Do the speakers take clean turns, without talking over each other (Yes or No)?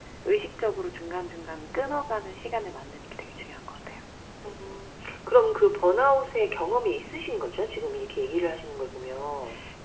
Yes